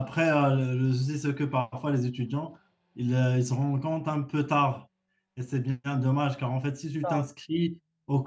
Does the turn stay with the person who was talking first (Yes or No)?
Yes